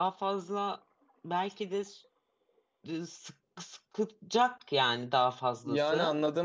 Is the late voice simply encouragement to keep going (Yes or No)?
No